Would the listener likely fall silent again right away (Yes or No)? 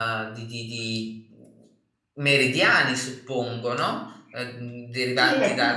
No